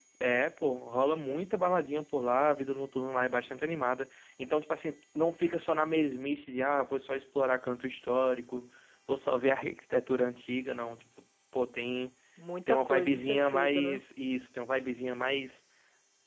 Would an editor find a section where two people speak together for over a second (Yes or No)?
Yes